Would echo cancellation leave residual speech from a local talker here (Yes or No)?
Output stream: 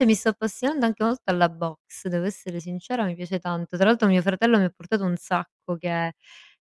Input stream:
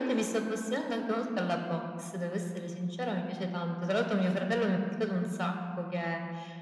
No